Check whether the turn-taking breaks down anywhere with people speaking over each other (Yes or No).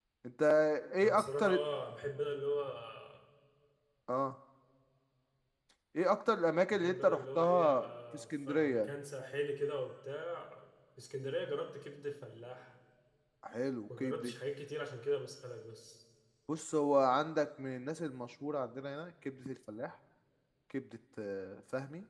Yes